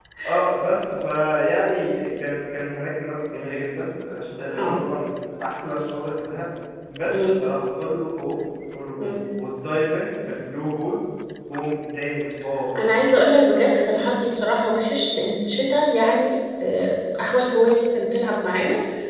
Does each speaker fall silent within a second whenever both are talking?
Yes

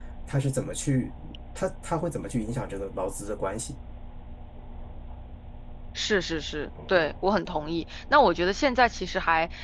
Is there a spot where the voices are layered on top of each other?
No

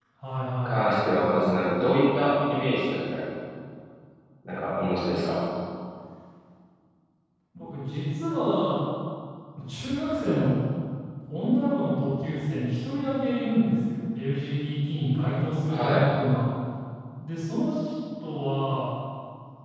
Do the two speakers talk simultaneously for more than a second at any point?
No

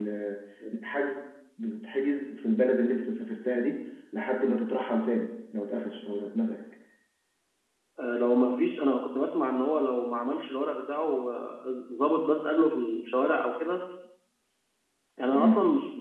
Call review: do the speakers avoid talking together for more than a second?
Yes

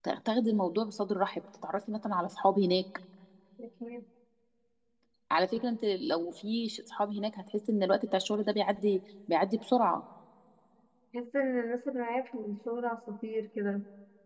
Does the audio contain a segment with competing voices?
No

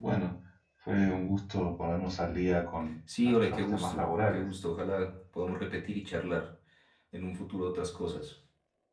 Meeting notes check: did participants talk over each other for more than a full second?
Yes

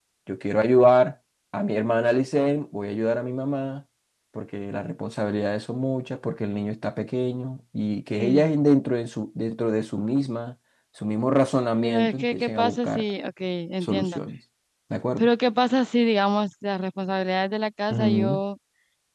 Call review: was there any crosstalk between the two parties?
Yes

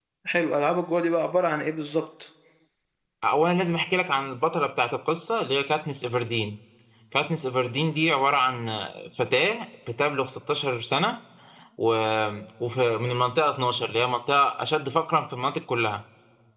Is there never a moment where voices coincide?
Yes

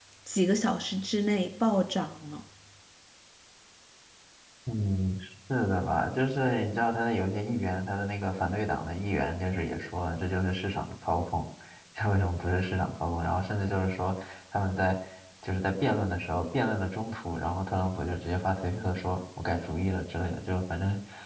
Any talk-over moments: No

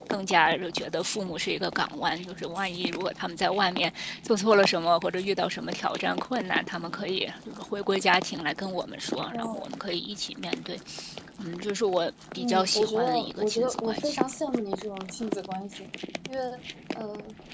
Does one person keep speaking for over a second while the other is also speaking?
Yes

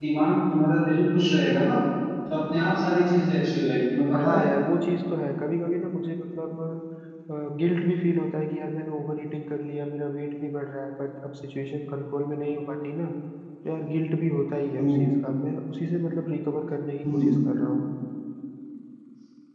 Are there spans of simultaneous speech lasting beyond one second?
No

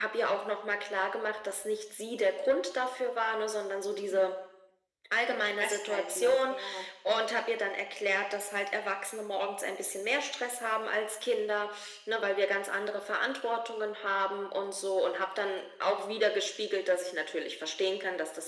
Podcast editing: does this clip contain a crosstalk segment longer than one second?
Yes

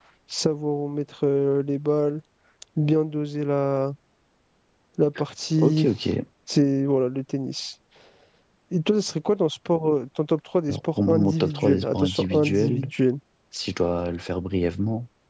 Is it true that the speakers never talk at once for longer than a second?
No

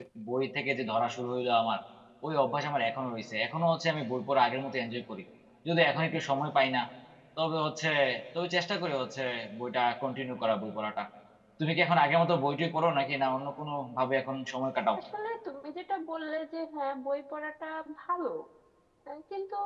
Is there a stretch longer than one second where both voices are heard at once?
No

